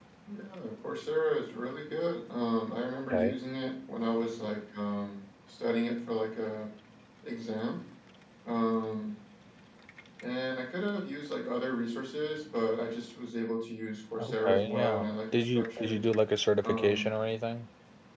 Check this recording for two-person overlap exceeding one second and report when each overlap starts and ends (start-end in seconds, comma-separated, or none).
14.2-16.0